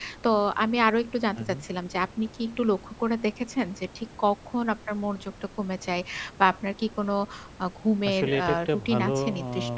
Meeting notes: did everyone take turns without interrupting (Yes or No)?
No